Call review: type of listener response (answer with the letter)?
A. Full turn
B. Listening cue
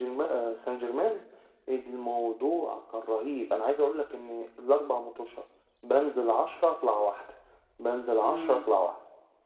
B